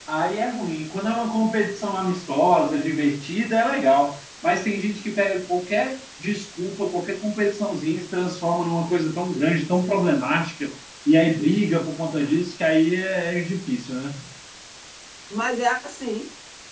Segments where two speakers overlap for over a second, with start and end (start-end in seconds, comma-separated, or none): none